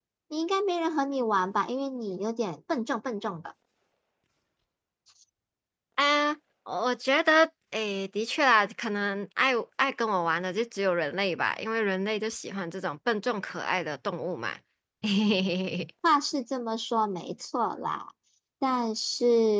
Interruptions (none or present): none